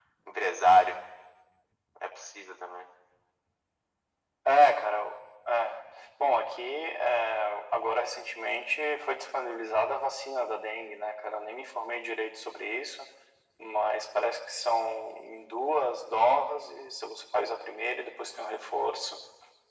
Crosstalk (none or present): none